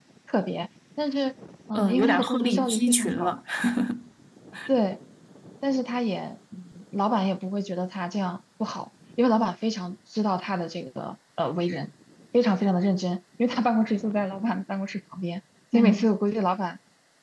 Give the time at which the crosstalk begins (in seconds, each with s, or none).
1.7 s